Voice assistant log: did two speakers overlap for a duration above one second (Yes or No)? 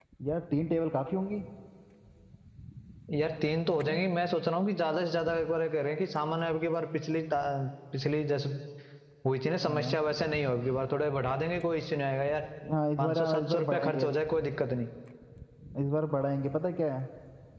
Yes